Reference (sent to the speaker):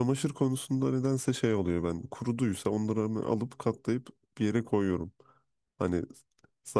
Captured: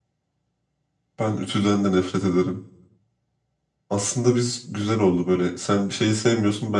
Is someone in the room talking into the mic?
Yes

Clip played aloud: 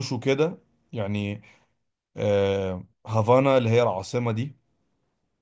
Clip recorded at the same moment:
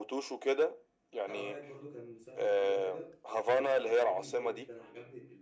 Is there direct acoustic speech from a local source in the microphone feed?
Yes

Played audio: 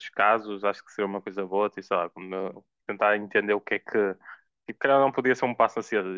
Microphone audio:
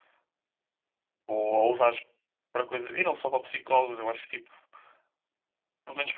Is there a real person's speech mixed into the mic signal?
Yes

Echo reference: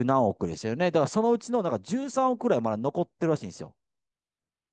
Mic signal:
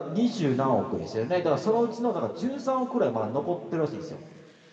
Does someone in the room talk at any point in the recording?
No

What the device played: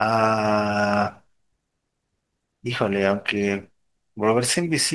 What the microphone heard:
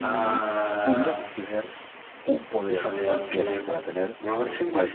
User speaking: Yes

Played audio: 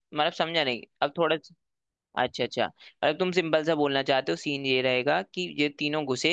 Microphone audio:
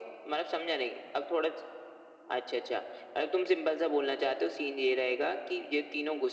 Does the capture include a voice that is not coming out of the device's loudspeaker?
No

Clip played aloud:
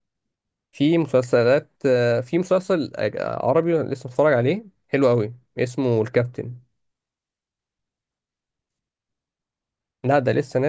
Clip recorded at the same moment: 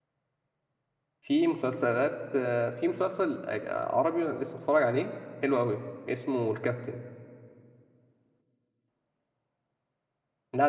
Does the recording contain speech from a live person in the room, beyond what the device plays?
No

